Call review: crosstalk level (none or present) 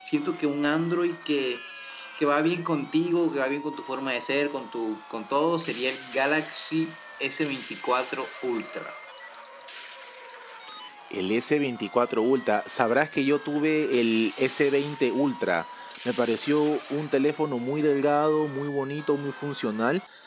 none